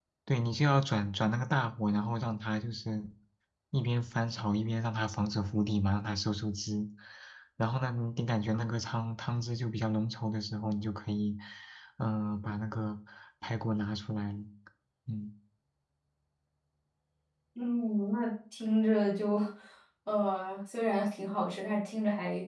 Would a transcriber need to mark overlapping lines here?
No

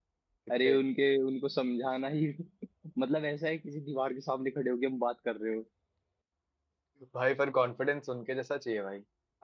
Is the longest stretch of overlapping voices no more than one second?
Yes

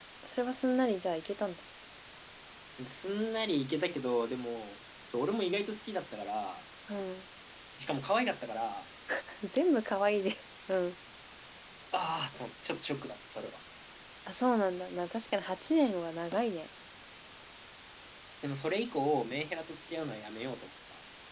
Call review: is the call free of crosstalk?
Yes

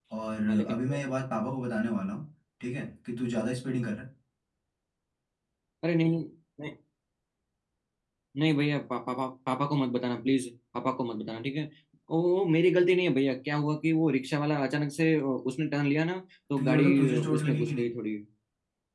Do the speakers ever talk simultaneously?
Yes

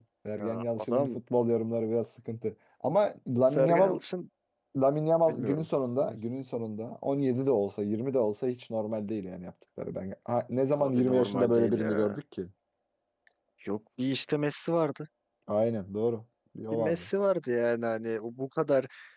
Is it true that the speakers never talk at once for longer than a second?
No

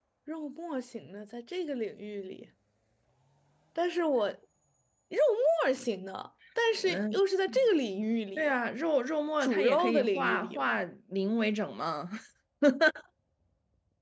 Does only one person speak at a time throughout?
No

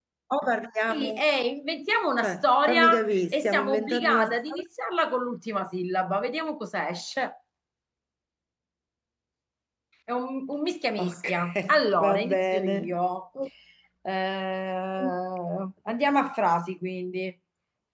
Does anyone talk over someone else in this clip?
Yes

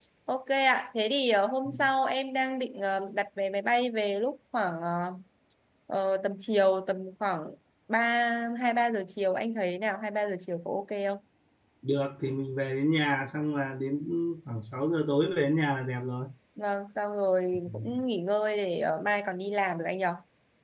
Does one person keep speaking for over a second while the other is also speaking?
No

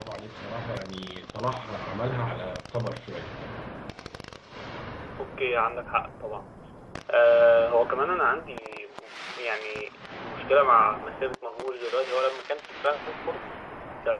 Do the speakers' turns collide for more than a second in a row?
No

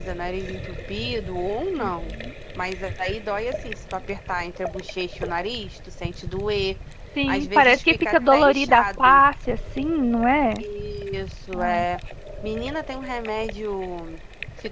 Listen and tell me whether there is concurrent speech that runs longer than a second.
Yes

